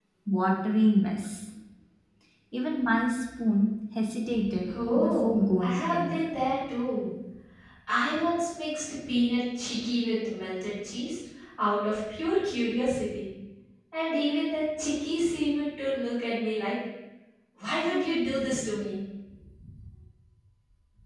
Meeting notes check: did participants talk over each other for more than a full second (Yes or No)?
Yes